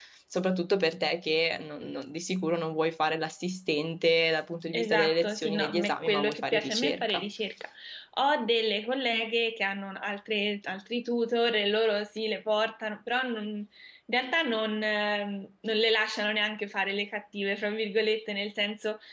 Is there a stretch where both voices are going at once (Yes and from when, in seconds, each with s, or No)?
Yes, from 4.7 s